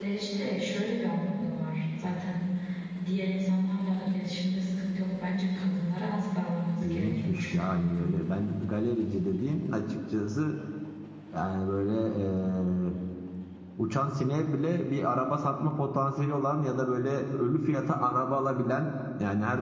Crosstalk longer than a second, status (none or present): present